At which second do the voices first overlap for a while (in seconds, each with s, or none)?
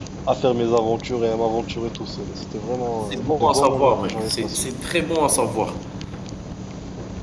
3.1 s